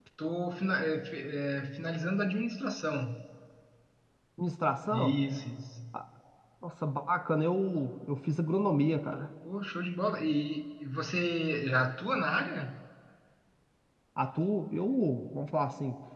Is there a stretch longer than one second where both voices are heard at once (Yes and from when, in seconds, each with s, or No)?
No